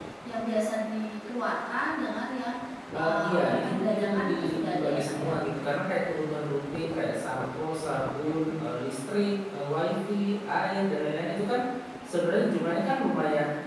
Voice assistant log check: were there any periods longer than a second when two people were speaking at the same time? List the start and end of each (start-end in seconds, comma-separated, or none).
3.0-5.3